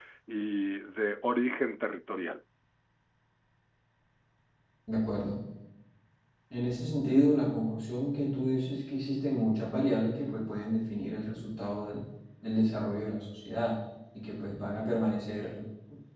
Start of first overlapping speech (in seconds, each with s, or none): none